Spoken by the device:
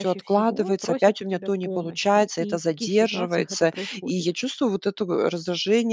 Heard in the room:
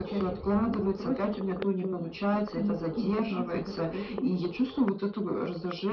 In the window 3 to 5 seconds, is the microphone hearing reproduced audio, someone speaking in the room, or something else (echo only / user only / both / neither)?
echo only